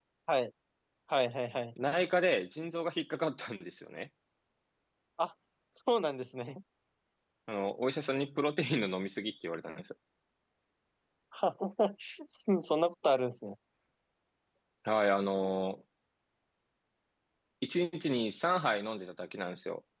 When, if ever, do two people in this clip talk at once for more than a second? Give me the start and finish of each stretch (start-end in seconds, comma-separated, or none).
none